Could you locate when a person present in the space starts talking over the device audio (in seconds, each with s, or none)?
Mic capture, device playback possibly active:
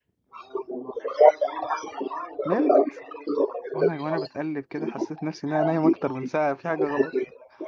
2.4 s